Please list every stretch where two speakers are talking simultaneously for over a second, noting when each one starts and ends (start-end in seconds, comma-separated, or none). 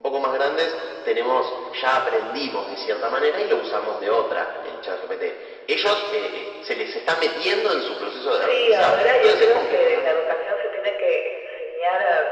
8.4-10.2